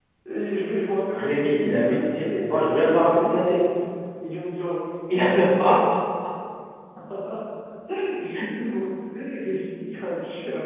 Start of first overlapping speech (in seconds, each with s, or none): 1.1 s